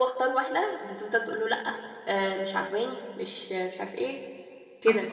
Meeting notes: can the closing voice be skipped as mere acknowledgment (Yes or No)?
No